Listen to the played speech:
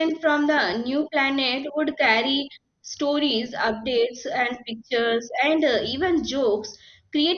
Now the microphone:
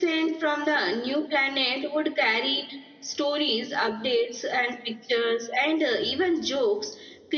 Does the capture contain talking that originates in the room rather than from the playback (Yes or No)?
No